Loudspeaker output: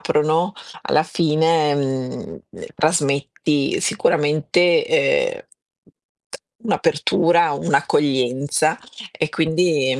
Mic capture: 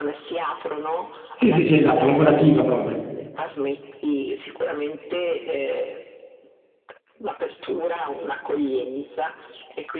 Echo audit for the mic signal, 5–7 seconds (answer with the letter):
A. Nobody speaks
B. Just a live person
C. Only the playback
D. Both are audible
C